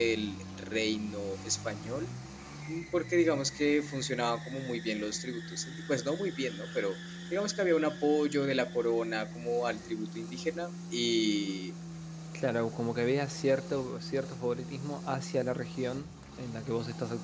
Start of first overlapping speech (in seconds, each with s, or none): none